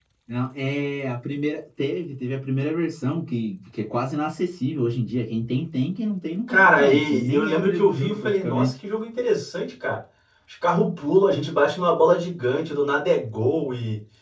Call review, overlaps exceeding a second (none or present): present